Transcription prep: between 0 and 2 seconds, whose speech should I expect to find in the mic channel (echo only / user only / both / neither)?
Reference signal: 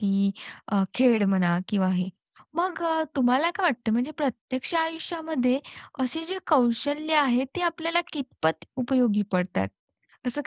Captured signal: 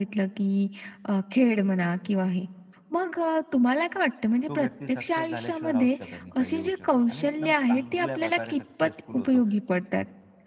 echo only